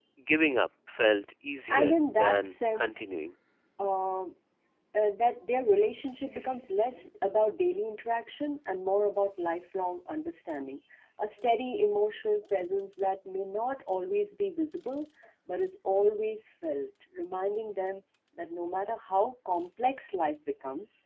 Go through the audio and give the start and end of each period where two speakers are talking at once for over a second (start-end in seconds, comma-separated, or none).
1.7-3.1